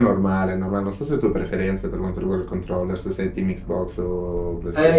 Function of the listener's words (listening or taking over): taking over